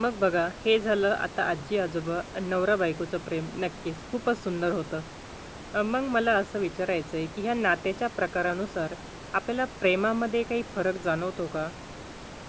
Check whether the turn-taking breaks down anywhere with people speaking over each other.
No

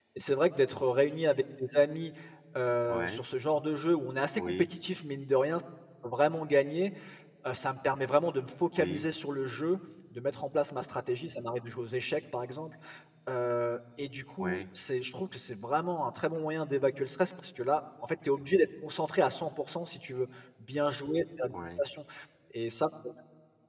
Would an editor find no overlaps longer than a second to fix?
Yes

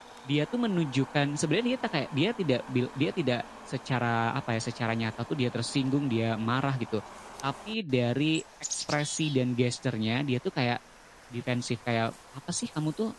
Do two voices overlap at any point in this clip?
No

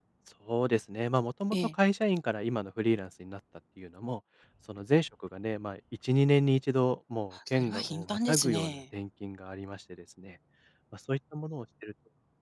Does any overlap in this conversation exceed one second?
Yes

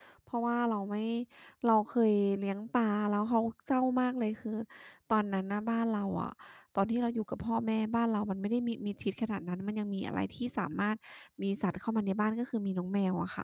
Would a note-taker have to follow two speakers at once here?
No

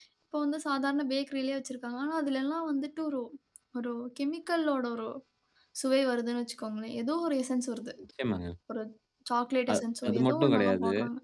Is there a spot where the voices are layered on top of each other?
Yes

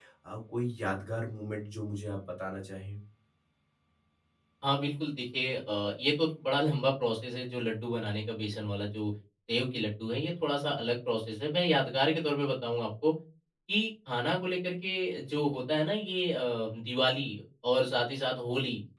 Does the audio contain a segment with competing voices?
No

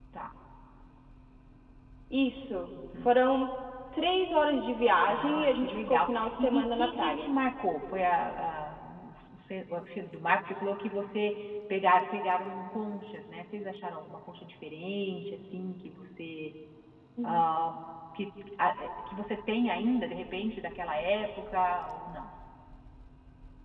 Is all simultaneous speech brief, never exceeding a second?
No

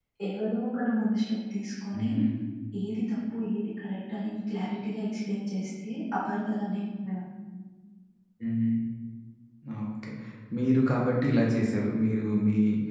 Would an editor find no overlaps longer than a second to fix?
Yes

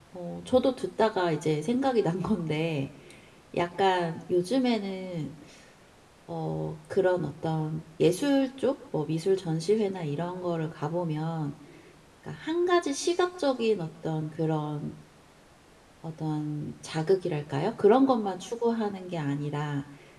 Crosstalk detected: No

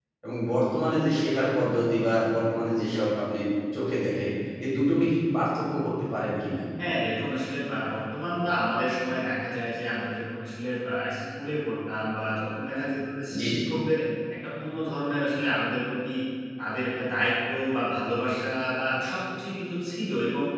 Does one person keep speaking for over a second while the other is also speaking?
No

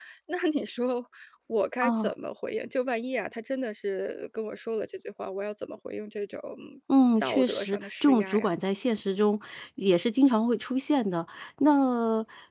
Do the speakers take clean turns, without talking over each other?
No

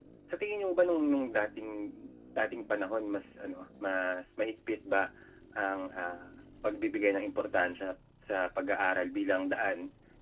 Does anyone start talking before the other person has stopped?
No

